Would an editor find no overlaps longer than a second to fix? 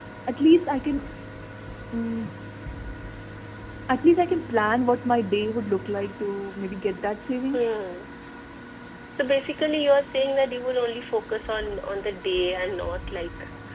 Yes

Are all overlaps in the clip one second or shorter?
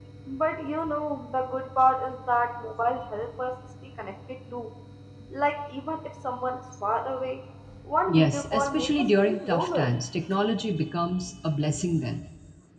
No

